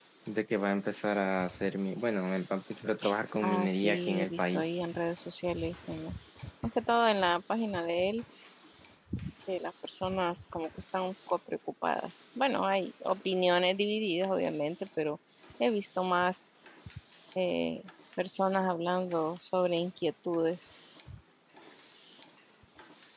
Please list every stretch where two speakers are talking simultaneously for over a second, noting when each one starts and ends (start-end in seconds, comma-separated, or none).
3.4-4.6